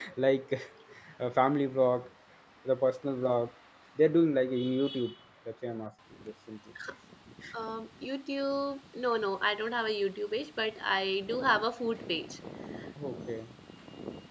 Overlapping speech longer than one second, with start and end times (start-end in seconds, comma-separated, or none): none